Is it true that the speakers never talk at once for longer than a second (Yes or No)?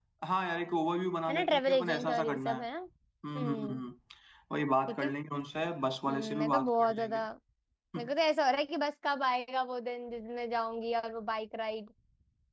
No